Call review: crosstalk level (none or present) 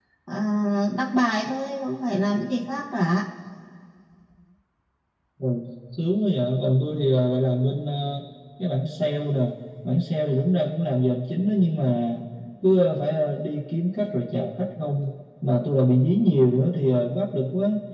none